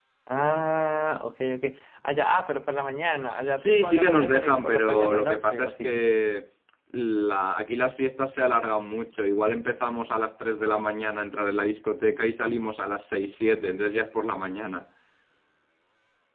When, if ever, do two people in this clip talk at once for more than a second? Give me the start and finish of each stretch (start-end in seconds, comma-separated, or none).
3.5-6.0